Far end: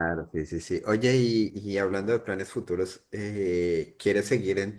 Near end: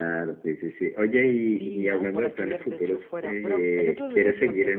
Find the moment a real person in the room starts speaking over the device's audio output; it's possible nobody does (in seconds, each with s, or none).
1.5 s